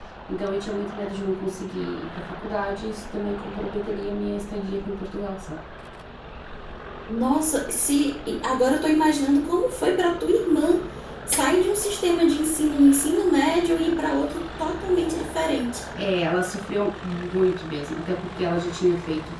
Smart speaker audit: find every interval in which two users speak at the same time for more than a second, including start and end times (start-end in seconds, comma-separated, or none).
none